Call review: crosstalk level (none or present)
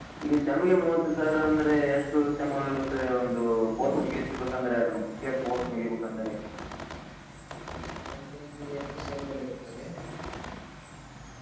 none